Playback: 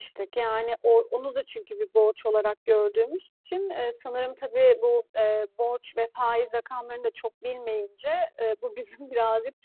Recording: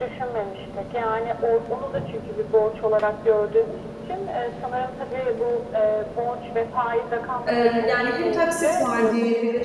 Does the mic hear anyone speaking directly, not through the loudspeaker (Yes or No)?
Yes